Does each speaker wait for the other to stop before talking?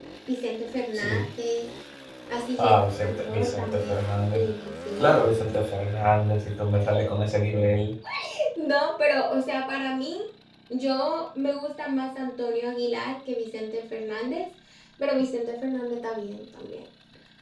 No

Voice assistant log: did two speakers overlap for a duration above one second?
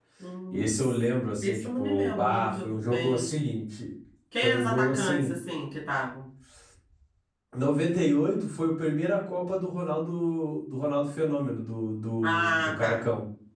Yes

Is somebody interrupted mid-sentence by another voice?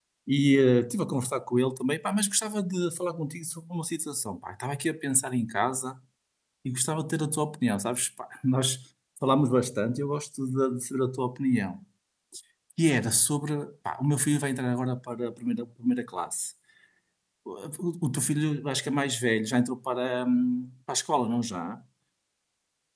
No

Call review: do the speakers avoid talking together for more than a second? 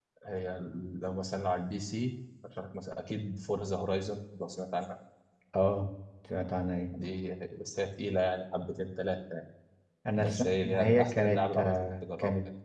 No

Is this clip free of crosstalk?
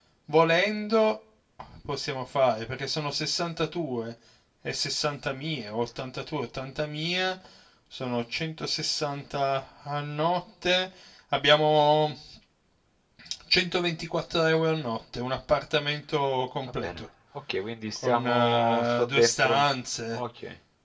No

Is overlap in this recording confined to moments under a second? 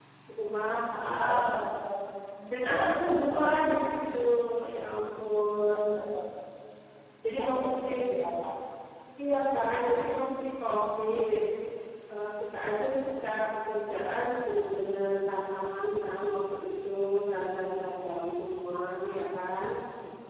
No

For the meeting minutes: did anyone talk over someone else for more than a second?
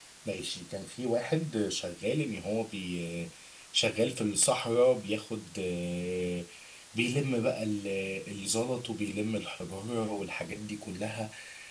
No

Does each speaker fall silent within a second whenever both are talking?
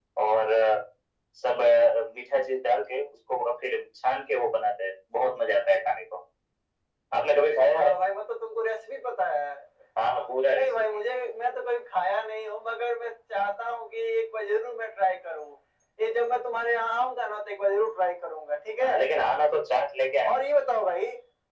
Yes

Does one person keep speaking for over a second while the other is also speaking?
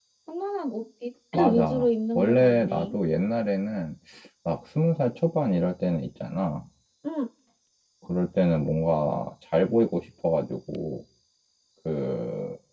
Yes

